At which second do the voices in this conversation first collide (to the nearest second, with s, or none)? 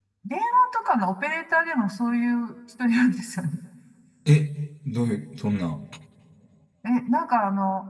none